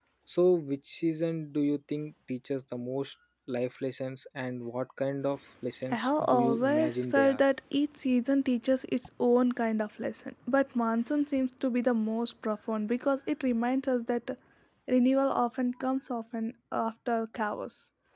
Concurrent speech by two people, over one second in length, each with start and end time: 5.9-7.4

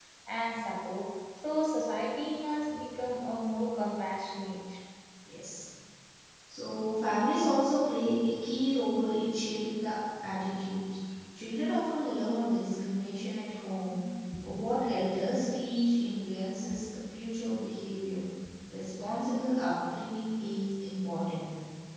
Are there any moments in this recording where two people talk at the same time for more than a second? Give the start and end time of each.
none

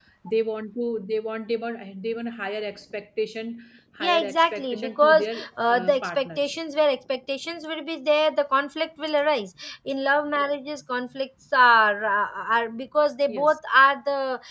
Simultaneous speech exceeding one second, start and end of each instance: 4.0-6.6

